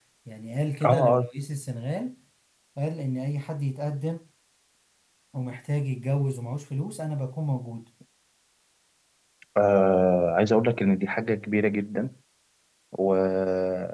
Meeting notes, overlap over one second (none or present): none